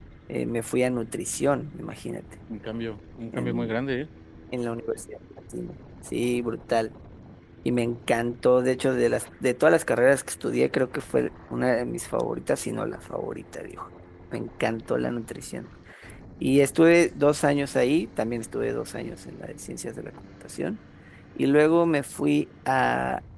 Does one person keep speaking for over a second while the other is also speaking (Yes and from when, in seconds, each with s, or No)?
No